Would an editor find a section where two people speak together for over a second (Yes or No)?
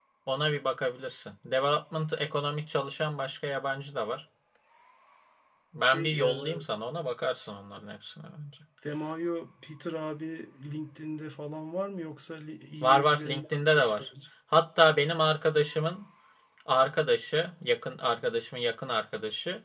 Yes